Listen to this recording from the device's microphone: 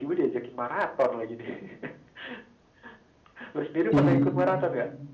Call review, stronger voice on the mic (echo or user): user